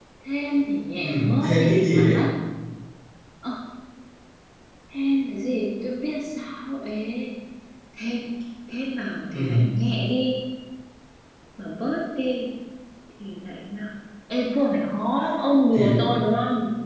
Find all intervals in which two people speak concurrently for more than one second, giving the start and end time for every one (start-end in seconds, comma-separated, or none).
1.0-2.2